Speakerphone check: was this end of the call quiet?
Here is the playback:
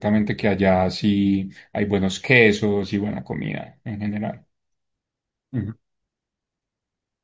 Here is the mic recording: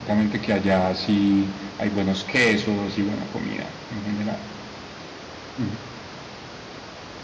Yes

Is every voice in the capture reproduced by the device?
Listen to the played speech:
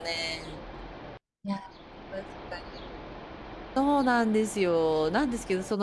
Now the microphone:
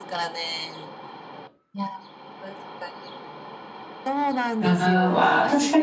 No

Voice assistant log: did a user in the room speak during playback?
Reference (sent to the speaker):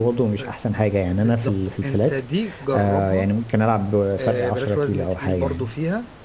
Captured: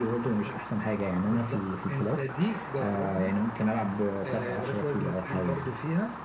No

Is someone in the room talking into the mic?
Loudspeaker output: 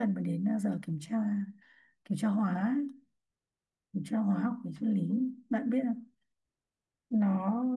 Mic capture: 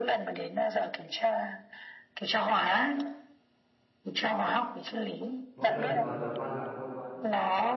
Yes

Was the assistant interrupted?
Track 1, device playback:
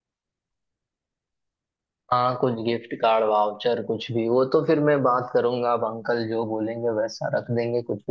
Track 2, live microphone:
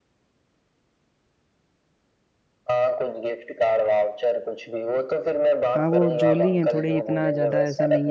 Yes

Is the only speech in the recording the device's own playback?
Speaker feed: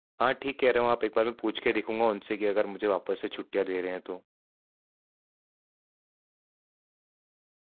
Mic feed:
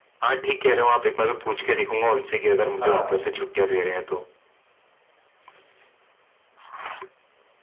No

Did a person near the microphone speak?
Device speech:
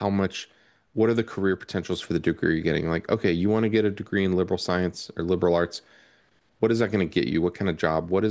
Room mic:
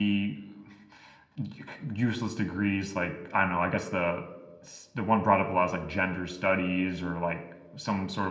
Yes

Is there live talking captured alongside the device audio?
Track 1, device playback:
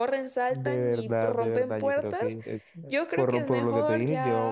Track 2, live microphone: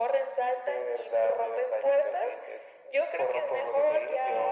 No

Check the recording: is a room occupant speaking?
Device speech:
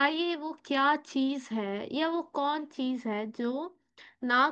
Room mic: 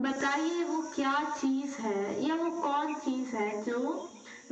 No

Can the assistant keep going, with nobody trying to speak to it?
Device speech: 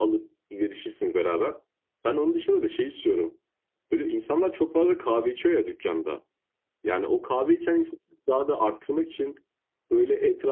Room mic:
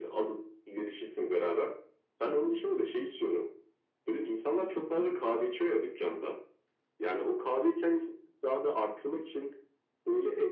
Yes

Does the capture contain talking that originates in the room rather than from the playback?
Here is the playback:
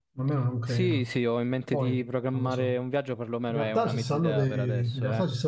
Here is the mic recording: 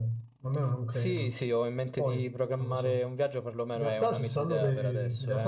No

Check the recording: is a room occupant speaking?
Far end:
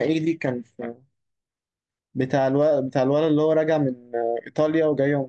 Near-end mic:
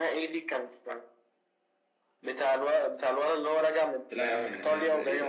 Yes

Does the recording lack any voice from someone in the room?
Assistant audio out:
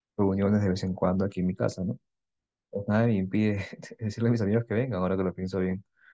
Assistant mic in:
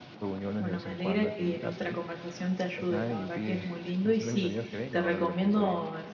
No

